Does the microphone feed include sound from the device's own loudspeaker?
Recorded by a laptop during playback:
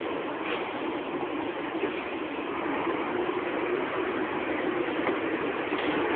No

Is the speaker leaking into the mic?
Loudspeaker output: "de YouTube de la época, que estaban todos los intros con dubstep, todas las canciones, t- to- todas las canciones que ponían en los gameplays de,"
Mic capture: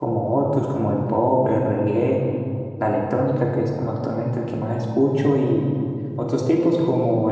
No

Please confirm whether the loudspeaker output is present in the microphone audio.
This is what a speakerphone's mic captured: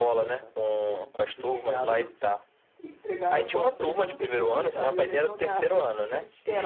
Yes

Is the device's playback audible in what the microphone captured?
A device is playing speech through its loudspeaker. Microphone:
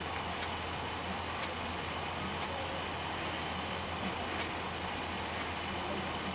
No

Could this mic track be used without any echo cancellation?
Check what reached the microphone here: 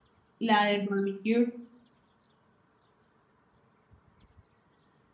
Yes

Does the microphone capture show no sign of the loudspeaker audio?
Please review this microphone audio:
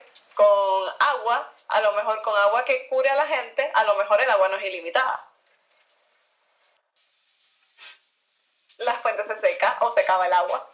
No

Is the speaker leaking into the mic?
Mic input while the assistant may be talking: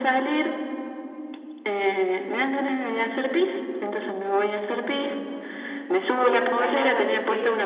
Yes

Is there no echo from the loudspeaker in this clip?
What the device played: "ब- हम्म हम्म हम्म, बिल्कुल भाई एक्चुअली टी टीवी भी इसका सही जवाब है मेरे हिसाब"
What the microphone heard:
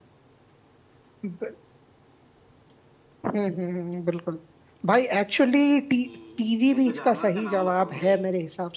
No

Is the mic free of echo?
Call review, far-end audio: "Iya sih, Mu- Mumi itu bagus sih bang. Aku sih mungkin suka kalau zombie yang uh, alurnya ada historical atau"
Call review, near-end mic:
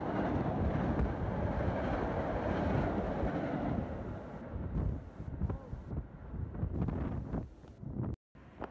Yes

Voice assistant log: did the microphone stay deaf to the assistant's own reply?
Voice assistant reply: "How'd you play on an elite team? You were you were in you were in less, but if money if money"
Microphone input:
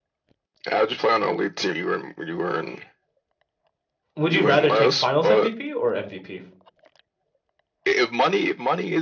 No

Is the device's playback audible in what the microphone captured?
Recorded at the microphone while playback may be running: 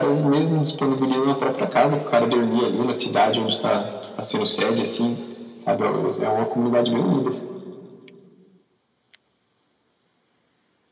Yes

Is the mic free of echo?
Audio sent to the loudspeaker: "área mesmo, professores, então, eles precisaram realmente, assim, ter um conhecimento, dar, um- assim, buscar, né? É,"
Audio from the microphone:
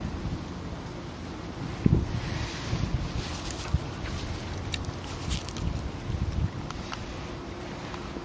Yes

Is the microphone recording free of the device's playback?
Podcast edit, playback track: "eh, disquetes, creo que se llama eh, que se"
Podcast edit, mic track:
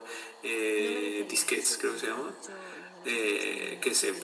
No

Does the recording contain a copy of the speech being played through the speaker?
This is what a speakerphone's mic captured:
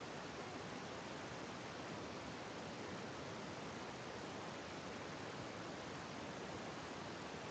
No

